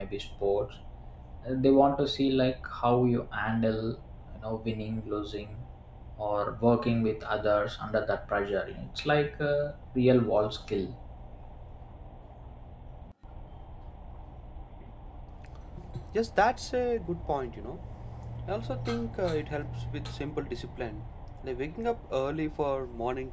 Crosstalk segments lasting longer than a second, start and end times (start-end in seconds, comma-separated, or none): none